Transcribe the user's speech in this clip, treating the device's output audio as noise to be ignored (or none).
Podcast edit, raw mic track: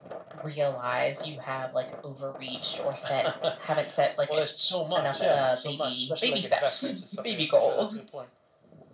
none